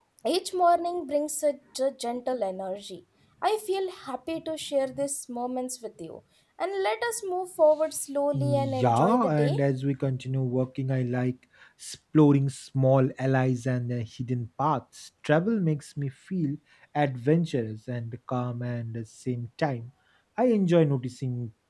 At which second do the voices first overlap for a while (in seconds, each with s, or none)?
8.3 s